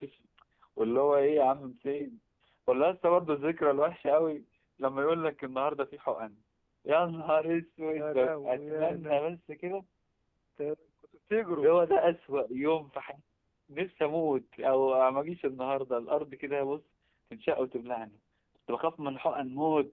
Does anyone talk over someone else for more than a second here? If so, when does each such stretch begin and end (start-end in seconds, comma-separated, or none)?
8.0-9.3